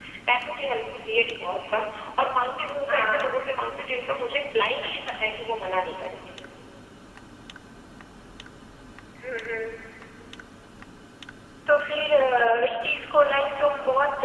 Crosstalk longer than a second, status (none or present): none